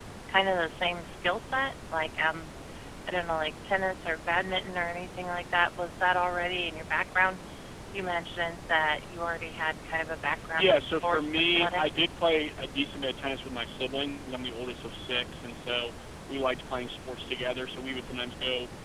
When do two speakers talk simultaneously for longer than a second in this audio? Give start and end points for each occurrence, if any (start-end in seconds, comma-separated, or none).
10.6-12.0